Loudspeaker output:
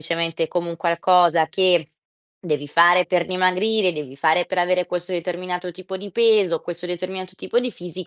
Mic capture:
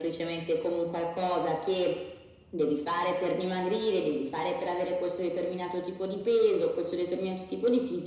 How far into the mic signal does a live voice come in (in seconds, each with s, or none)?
none